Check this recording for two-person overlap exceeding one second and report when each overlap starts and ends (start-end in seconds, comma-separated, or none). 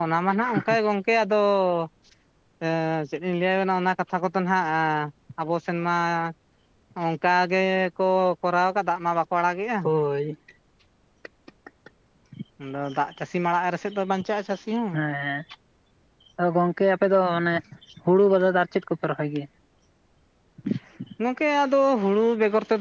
none